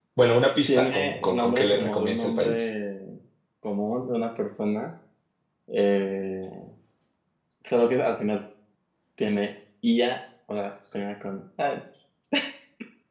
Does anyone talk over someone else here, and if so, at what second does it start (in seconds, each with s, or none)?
0.7 s